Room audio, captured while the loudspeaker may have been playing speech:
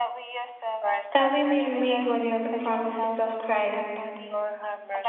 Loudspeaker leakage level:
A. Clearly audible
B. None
A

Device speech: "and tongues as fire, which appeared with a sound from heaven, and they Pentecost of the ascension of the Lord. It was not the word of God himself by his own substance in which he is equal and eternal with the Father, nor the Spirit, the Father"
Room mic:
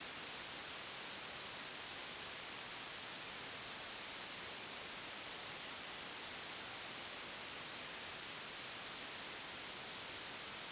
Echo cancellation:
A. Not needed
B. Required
A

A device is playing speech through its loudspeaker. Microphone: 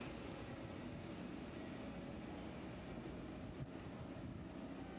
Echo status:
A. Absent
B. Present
A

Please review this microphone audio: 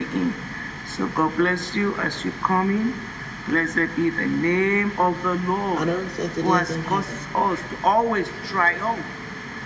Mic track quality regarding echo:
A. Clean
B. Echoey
B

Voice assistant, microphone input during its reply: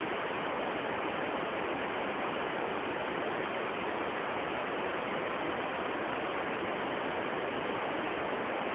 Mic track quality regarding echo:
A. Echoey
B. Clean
B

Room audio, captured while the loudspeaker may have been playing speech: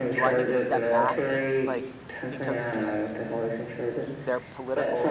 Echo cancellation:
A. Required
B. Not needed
A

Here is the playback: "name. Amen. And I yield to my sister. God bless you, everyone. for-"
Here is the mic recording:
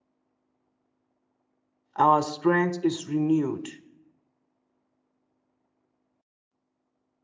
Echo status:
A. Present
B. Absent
B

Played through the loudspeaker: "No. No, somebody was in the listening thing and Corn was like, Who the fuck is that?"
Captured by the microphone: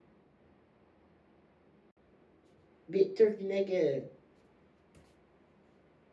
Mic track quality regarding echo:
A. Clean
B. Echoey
A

